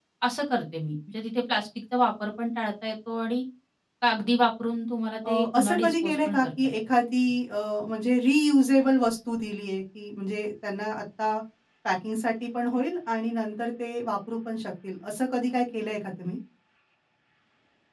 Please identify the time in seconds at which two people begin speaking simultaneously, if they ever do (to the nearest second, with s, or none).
5 s